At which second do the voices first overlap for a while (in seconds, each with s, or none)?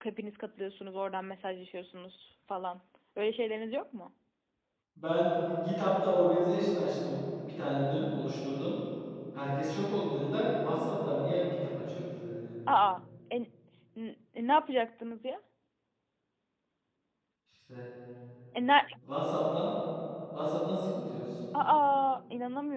none